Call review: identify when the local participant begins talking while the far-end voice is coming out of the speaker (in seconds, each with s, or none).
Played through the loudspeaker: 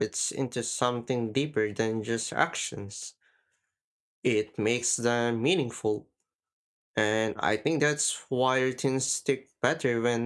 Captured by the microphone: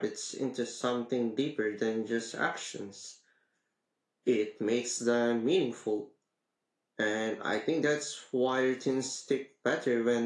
none